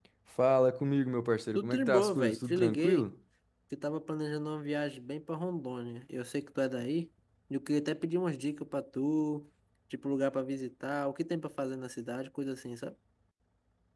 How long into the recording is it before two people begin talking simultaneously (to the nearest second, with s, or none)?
2 s